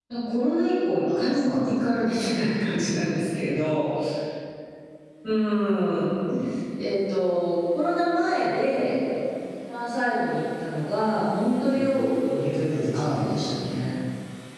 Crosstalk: present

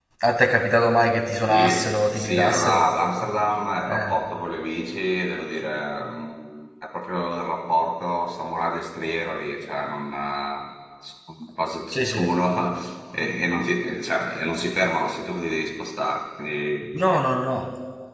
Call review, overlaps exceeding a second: present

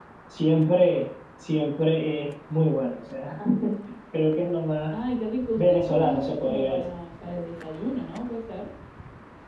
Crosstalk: present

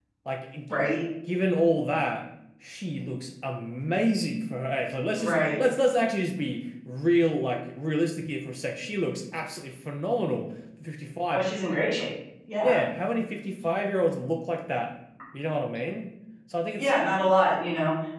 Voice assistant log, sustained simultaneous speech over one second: none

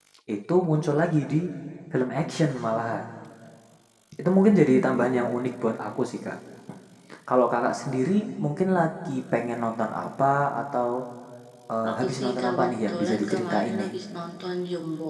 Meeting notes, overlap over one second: present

